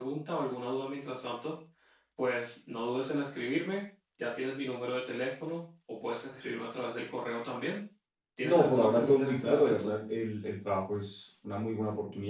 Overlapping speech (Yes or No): Yes